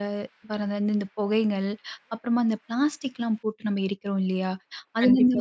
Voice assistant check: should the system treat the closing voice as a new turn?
No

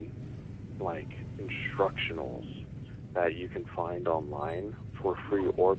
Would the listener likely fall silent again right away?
Yes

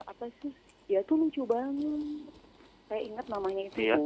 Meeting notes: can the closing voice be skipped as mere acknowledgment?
Yes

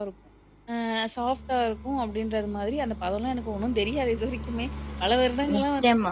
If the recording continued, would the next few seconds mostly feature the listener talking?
No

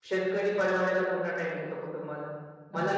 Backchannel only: Yes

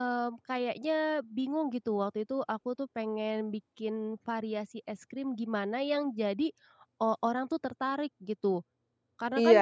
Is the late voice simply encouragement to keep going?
No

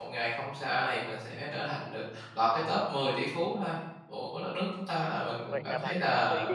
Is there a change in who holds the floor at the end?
Yes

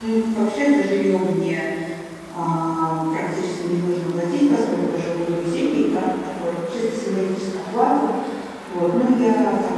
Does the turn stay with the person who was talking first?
Yes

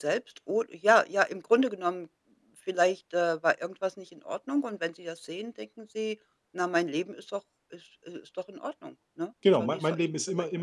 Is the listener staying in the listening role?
No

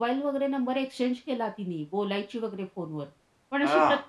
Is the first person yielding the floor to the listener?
No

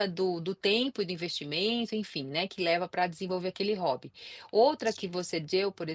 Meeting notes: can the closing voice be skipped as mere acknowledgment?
Yes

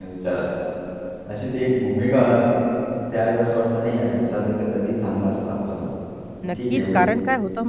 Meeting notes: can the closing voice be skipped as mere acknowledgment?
No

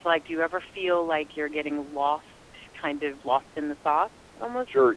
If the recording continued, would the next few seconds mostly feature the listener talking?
Yes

